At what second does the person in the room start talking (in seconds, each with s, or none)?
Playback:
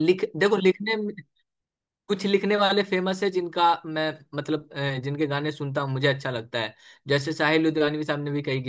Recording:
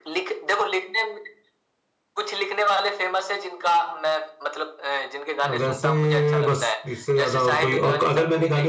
5.4 s